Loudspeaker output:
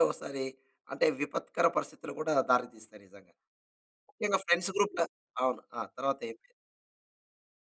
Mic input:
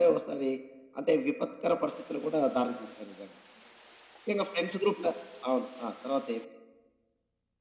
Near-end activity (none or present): none